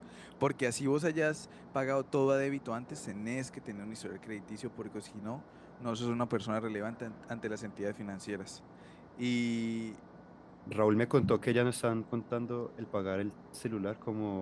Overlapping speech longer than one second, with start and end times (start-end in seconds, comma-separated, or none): none